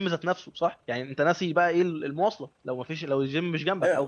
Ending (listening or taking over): taking over